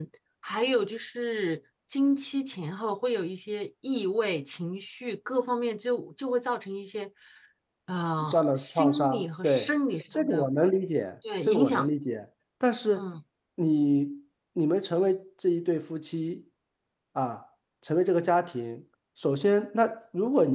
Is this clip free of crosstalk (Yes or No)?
No